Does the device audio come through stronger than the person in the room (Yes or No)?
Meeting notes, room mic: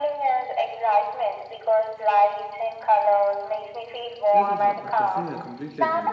Yes